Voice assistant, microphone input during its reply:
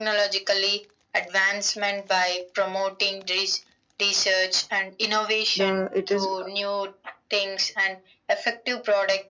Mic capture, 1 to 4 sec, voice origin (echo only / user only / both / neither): echo only